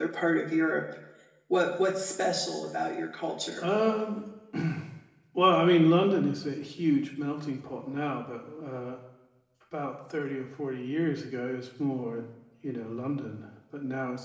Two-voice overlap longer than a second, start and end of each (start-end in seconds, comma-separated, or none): none